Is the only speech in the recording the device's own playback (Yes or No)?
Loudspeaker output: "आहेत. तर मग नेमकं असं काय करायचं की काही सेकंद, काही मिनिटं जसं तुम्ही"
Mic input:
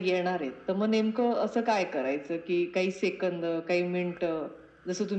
Yes